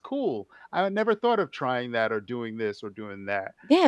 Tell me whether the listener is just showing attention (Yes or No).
No